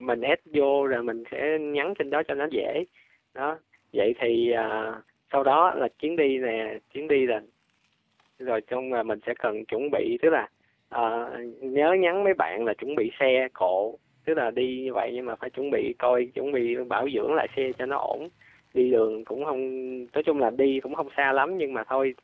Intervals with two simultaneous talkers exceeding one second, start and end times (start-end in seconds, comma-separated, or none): none